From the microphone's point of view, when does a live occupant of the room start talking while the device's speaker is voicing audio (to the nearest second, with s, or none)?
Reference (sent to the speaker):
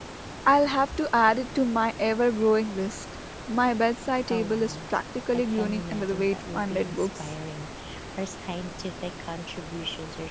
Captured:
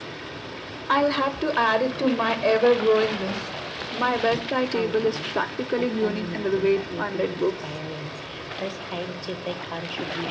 none